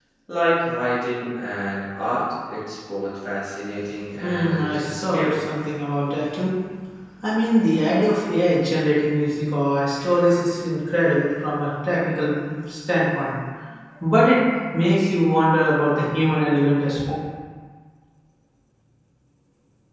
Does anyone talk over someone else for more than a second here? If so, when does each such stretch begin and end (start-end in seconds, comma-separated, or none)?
4.2-5.4